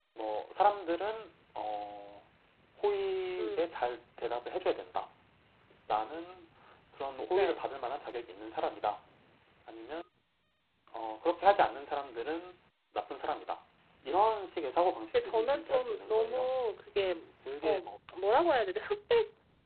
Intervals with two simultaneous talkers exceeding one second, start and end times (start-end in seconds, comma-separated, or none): 15.2-16.5